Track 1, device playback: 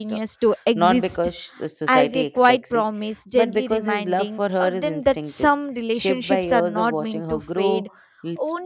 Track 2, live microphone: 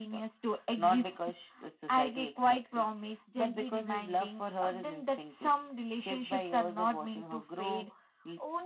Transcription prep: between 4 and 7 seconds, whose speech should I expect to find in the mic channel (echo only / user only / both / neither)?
echo only